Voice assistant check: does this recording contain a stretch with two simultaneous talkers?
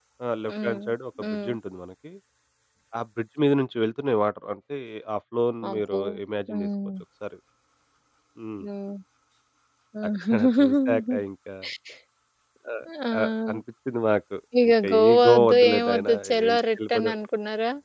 Yes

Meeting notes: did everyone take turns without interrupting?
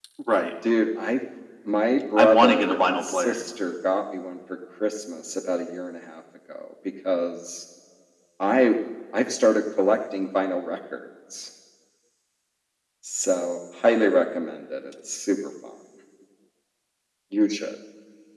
No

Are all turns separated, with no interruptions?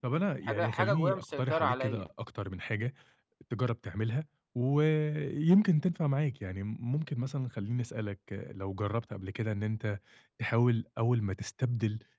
No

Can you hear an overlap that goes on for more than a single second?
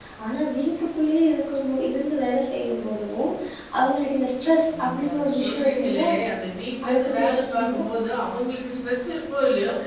Yes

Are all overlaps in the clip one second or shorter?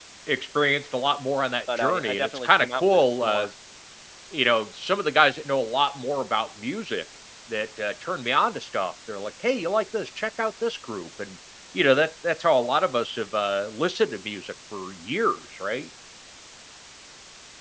No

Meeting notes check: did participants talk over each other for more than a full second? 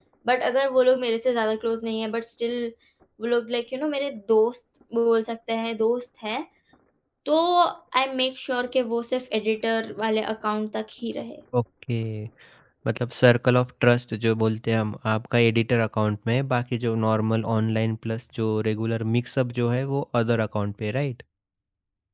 No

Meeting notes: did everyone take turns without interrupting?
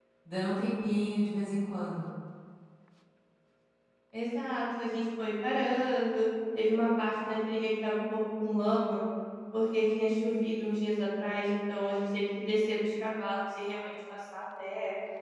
Yes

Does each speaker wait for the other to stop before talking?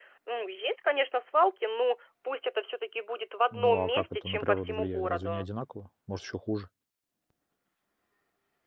No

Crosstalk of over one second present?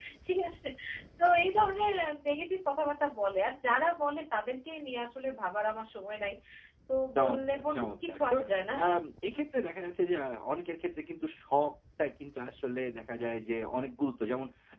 Yes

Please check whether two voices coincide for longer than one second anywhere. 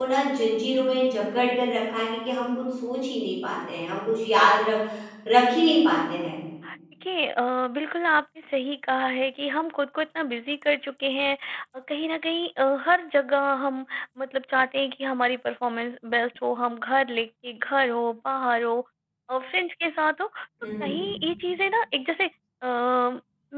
No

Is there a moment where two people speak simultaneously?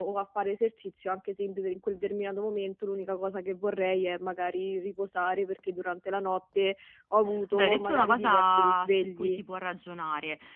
Yes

